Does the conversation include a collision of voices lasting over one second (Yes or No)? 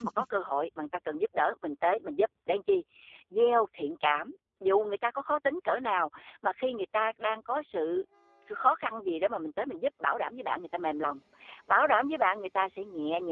No